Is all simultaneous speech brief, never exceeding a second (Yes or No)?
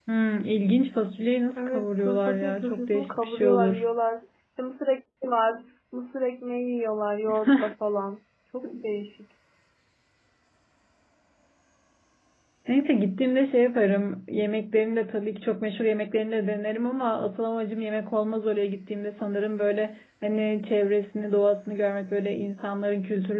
No